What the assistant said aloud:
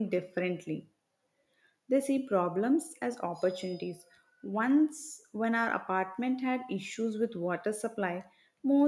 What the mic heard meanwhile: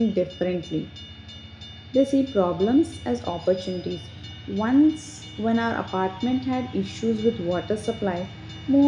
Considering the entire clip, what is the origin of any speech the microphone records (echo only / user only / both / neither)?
echo only